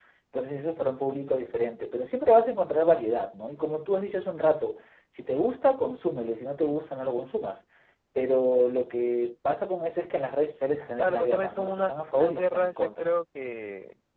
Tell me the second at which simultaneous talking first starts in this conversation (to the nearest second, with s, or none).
11 s